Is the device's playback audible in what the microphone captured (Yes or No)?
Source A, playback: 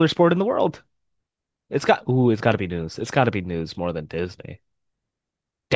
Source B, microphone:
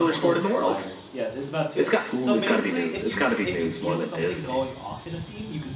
Yes